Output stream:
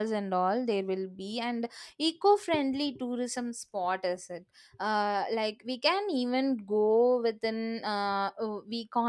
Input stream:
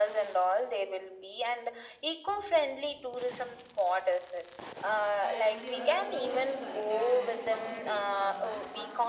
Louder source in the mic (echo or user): echo